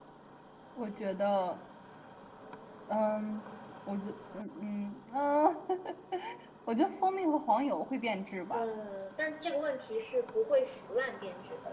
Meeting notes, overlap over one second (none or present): none